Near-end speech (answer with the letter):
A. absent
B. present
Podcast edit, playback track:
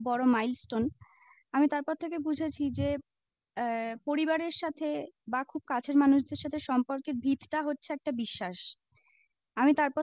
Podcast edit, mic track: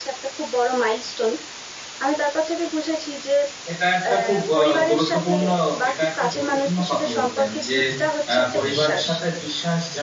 B